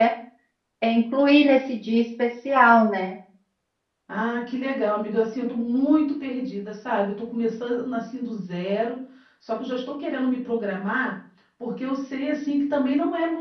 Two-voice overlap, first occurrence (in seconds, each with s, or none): none